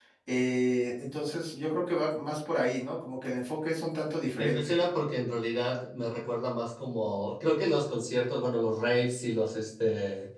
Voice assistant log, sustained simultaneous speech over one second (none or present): none